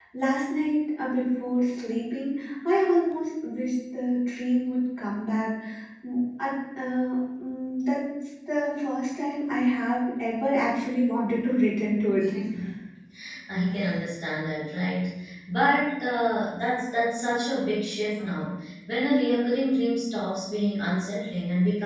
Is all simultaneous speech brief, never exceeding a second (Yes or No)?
Yes